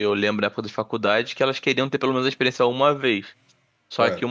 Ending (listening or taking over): listening